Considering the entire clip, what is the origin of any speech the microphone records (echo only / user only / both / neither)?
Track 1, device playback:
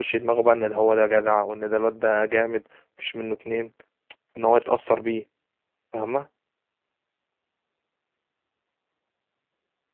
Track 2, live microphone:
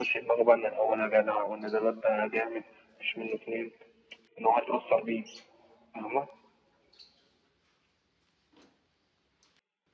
echo only